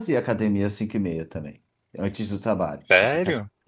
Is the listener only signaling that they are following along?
No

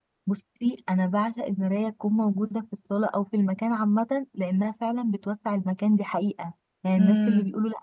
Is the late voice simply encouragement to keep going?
Yes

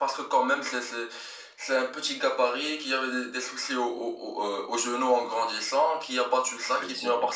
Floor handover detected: No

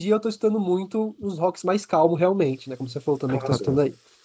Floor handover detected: Yes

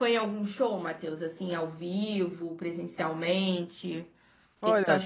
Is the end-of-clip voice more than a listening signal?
Yes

